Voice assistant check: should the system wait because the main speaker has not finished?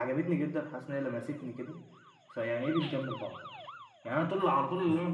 Yes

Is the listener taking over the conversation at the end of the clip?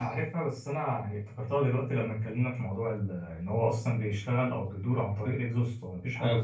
Yes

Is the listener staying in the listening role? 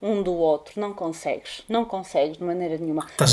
No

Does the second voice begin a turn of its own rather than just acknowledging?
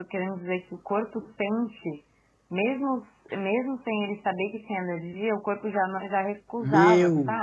Yes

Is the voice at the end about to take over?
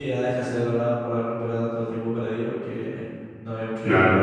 No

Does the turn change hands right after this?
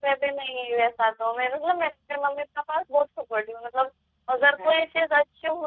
No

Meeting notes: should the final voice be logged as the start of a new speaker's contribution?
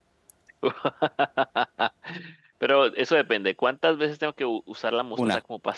No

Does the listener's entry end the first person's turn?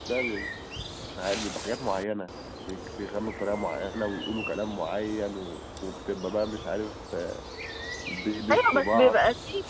Yes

